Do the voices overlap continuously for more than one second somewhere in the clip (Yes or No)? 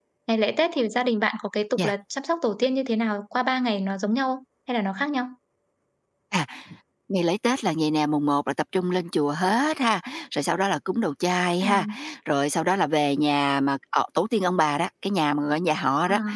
No